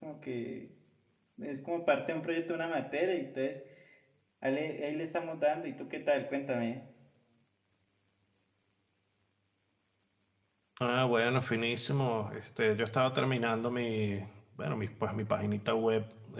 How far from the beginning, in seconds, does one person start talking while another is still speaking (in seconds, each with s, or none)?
none